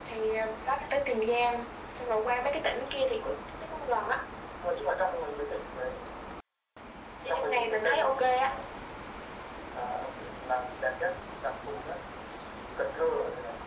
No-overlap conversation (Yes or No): No